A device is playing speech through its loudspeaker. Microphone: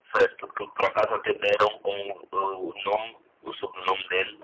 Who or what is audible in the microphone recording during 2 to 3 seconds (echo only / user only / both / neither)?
echo only